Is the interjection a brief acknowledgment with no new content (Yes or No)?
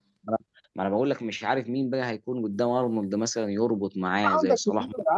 No